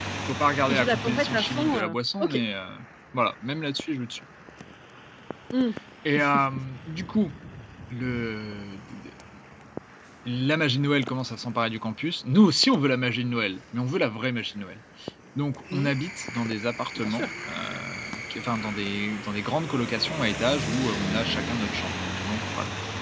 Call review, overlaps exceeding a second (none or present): present